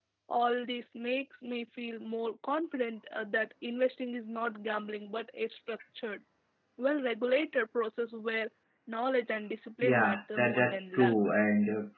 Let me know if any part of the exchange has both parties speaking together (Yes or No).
Yes